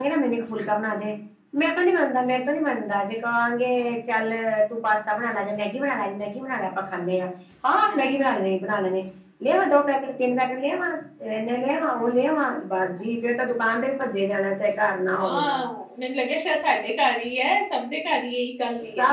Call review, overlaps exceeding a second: none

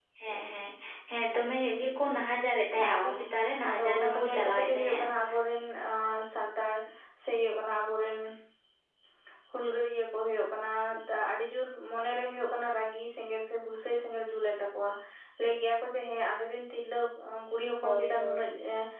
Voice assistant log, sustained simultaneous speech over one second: present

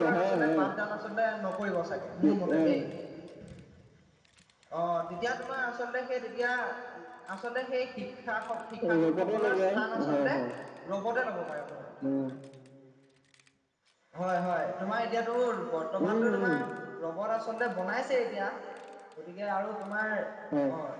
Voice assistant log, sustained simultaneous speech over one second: present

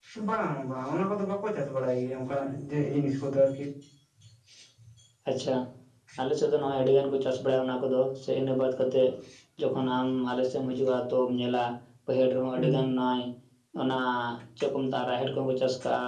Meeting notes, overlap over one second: none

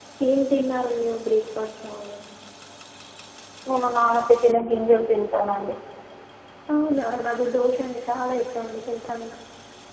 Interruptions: none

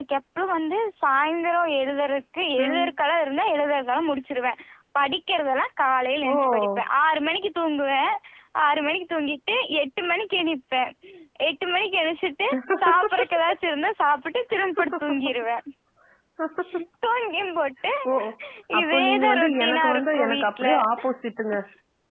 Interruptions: present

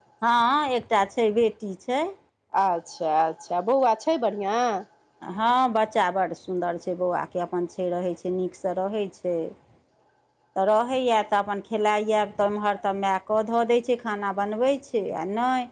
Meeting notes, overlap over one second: none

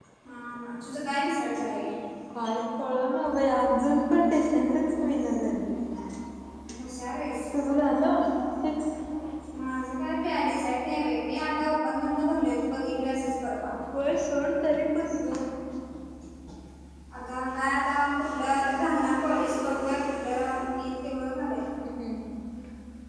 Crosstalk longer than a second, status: none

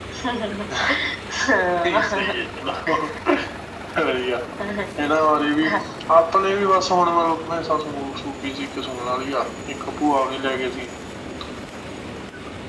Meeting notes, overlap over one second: none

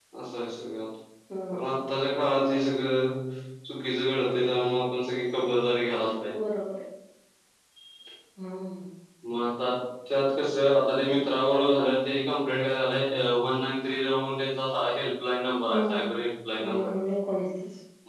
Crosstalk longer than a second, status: none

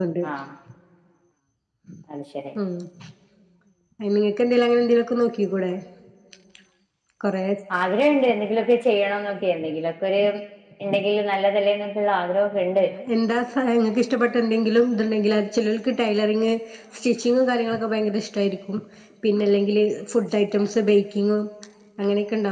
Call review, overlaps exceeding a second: none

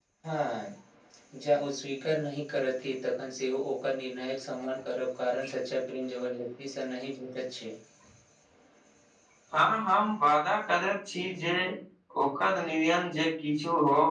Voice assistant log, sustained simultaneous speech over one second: none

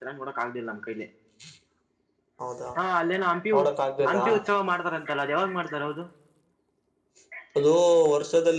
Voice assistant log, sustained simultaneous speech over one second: none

